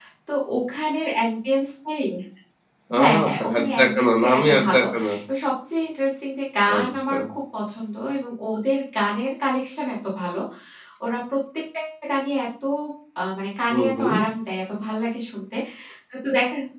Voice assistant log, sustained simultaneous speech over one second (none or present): present